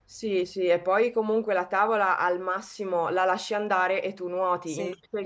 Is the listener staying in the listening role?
Yes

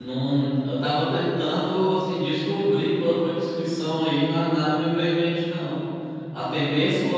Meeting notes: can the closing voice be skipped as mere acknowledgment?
Yes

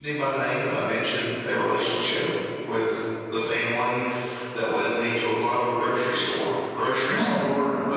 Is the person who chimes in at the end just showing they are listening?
Yes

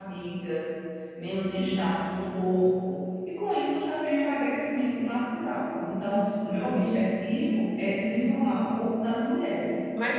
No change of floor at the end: No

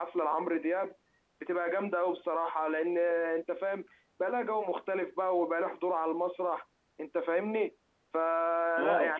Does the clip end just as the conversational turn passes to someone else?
No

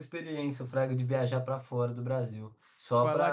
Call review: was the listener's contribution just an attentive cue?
Yes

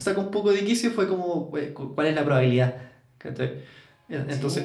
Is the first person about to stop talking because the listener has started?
Yes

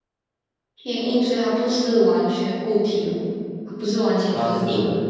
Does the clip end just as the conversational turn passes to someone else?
Yes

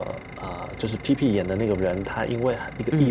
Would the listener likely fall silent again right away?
Yes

